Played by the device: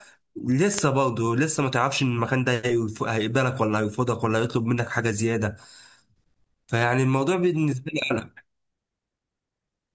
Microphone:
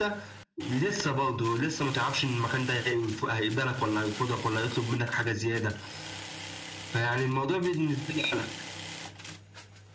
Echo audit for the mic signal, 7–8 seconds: echo only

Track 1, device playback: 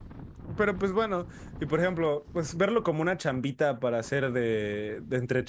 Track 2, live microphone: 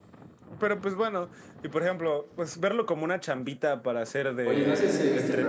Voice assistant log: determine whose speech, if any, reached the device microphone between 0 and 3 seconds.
echo only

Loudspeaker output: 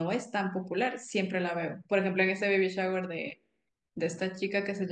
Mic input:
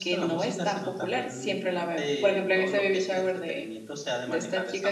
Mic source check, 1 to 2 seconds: both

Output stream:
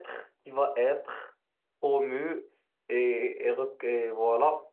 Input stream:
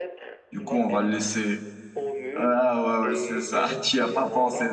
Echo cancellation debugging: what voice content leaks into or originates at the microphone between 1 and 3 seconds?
both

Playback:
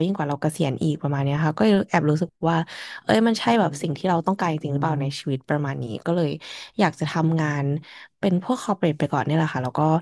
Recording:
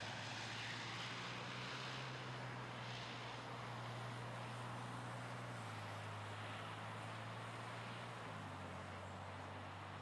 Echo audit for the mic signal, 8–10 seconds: neither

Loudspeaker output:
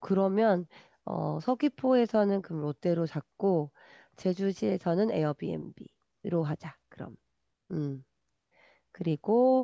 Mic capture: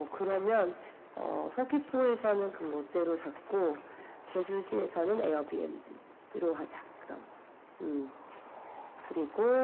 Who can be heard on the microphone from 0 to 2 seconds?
echo only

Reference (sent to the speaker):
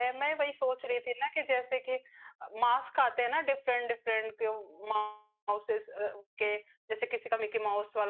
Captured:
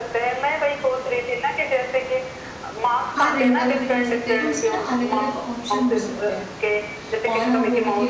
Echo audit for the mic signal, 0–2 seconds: echo only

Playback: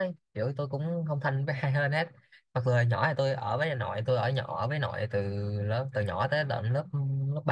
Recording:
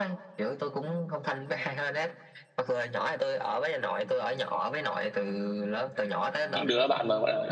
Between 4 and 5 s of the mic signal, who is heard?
echo only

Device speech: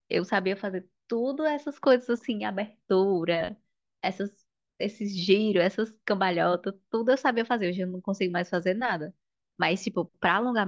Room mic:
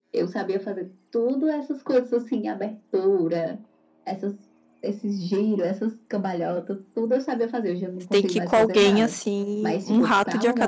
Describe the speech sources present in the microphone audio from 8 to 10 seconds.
both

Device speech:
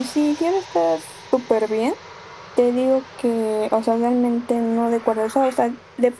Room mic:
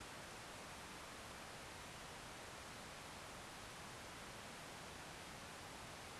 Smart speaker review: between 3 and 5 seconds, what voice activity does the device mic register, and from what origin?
neither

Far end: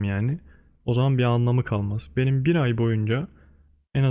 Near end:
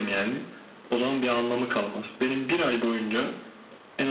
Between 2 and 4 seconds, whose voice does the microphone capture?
echo only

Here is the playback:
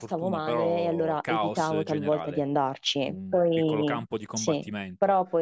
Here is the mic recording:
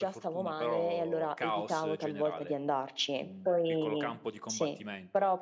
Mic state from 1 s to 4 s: echo only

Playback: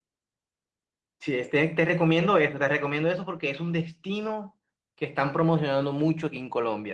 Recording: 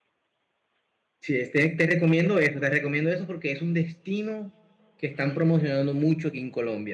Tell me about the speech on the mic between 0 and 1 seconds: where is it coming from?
neither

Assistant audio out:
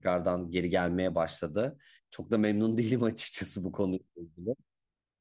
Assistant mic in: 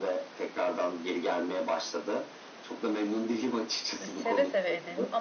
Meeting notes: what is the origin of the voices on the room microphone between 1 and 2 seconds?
echo only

